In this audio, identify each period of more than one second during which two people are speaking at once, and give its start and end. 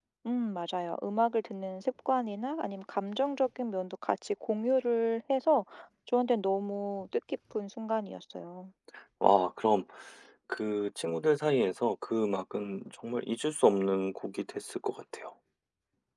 none

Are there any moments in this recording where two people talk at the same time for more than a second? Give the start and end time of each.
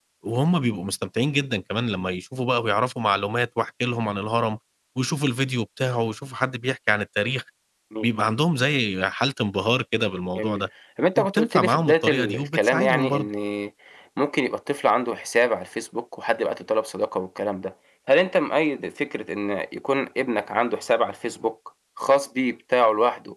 11.2-13.3

